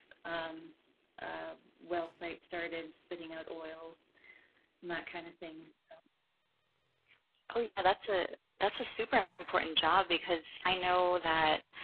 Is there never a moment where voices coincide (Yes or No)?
Yes